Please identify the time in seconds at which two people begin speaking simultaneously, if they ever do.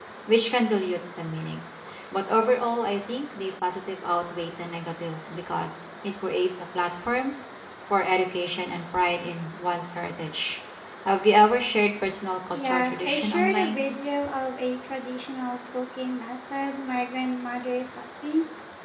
12.5 s

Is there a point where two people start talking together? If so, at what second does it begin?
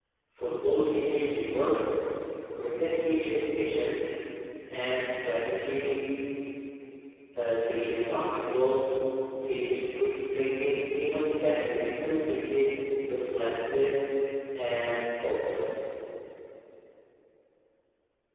none

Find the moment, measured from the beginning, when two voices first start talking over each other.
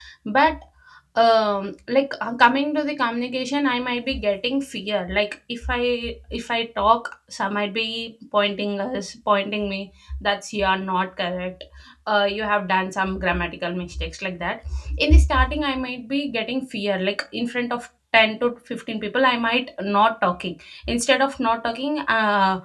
none

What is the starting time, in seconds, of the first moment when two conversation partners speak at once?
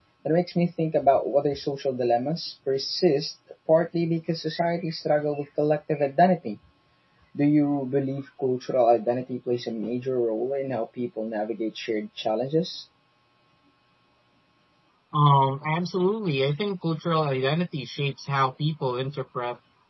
none

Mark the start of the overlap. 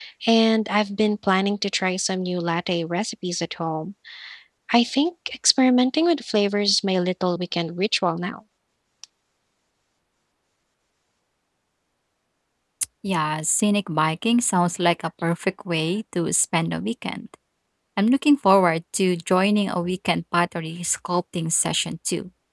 none

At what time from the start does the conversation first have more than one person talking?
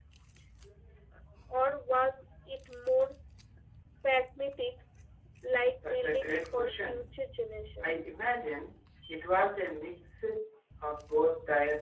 5.8 s

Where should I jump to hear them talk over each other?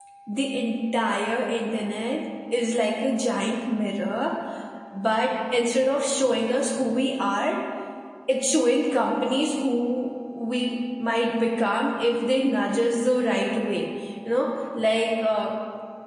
none

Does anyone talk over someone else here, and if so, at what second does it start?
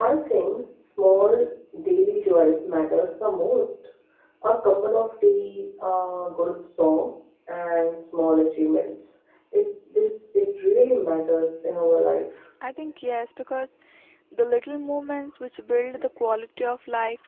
none

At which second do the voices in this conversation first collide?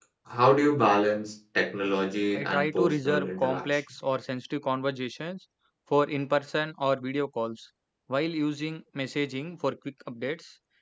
2.3 s

